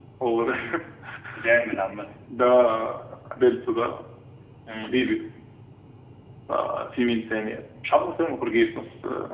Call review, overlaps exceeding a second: none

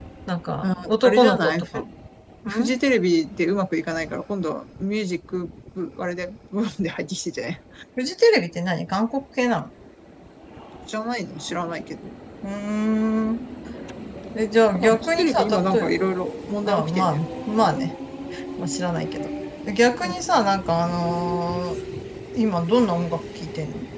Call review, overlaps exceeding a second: present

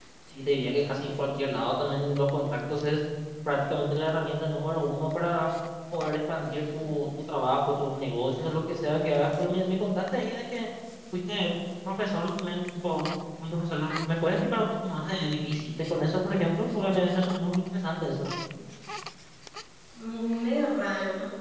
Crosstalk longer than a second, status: none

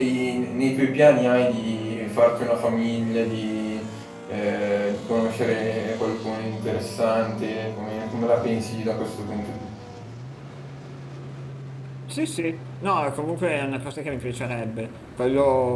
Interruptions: none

